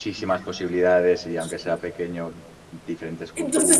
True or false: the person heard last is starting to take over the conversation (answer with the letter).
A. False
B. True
B